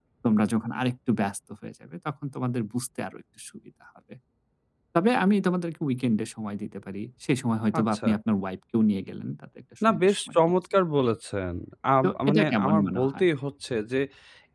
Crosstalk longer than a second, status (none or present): present